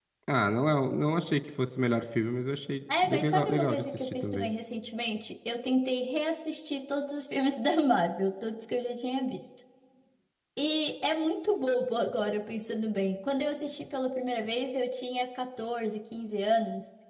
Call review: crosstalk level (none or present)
present